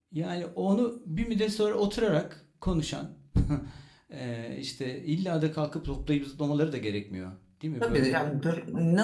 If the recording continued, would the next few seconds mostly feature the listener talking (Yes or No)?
Yes